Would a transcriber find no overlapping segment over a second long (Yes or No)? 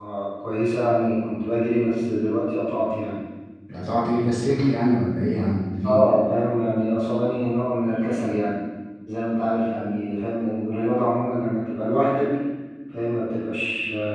Yes